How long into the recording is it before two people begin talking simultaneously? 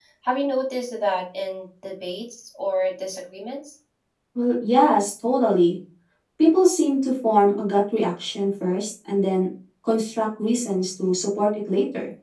none

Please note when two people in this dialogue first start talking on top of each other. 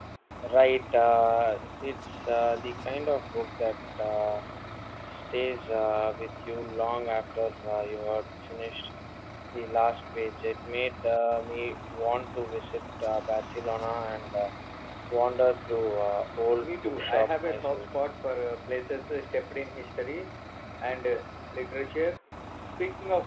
16.6 s

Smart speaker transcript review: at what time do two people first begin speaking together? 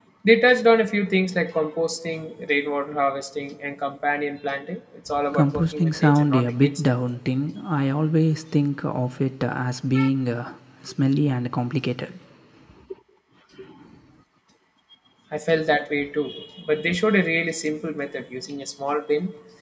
5.1 s

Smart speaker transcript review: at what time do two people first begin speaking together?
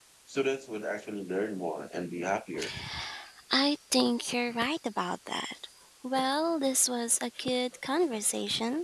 none

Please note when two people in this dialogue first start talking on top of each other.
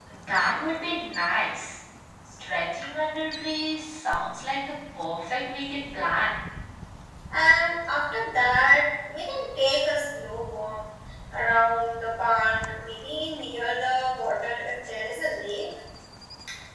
none

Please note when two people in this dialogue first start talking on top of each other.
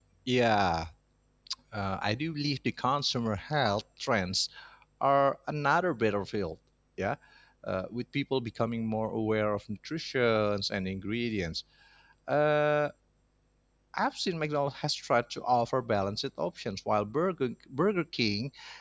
none

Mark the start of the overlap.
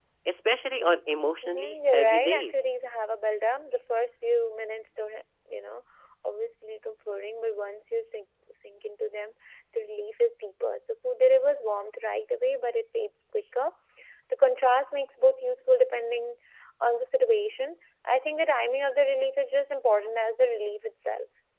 1.4 s

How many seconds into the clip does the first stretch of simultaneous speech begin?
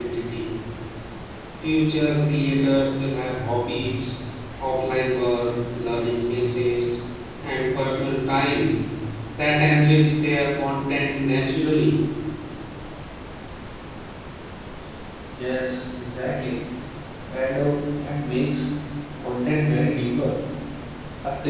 none

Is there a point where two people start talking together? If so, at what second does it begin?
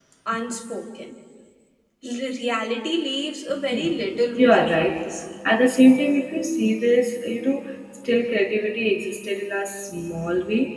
3.5 s

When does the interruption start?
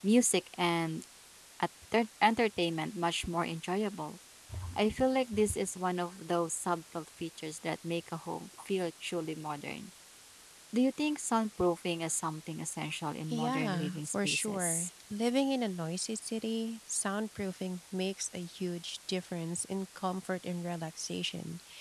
13.3 s

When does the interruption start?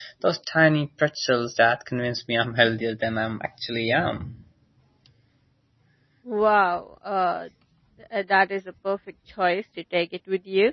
none

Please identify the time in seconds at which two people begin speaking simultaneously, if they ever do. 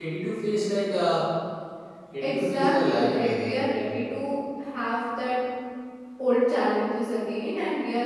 2.2 s

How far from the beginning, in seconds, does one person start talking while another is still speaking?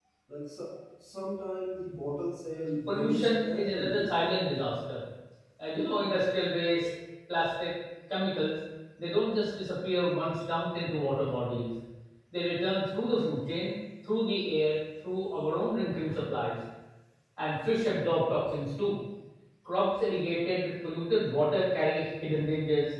2.9 s

